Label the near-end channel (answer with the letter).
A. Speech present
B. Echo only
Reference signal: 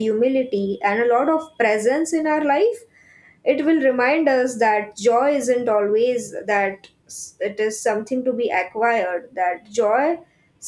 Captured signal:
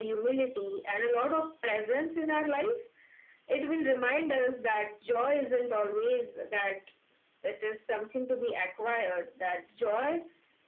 B